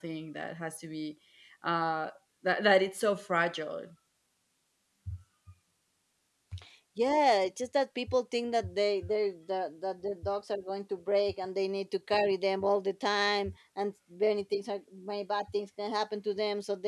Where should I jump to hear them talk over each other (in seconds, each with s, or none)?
none